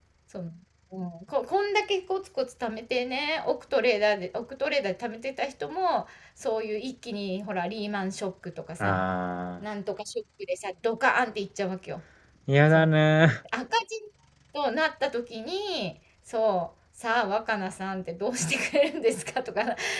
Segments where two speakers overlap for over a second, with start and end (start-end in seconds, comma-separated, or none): none